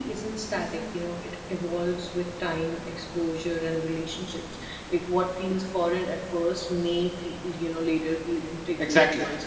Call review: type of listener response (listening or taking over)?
taking over